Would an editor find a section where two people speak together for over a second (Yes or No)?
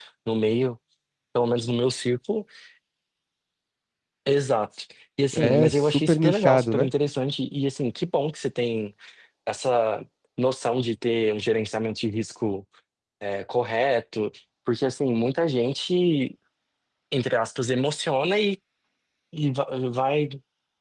Yes